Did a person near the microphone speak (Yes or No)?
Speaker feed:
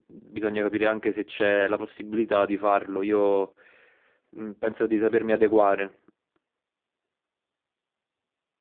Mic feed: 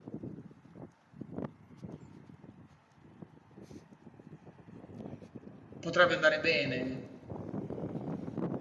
Yes